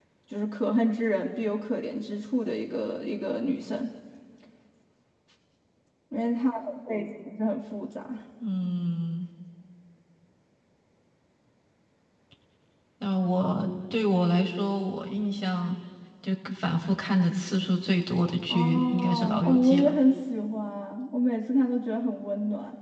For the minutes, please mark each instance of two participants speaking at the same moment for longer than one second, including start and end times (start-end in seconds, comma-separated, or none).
18.5-19.9